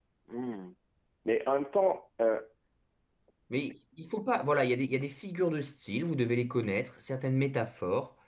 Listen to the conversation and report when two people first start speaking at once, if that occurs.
none

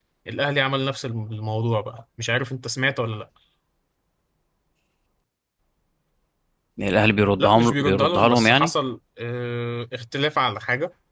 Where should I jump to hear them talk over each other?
7.4 s

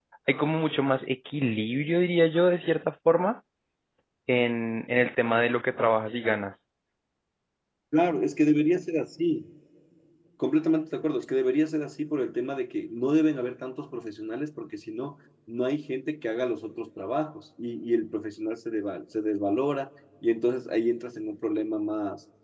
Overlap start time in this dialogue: none

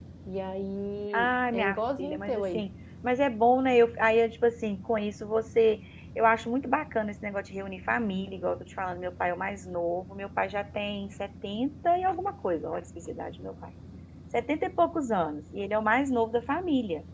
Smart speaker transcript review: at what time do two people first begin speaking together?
1.1 s

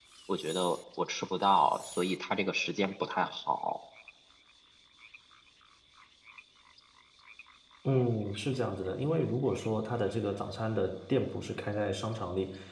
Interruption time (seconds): none

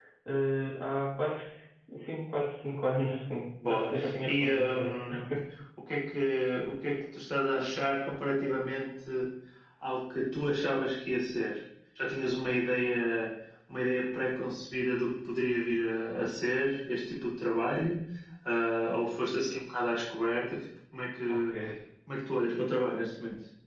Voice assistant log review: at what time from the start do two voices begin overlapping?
3.6 s

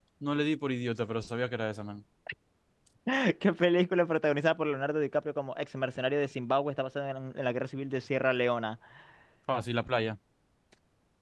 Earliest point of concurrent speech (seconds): none

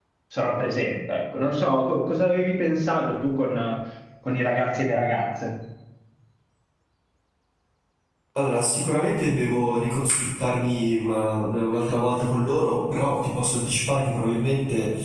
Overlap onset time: none

